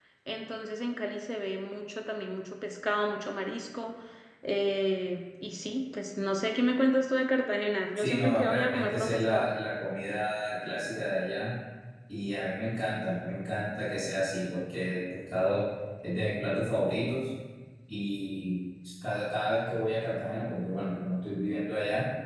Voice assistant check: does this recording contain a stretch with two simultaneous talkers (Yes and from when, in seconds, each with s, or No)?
Yes, from 8.0 s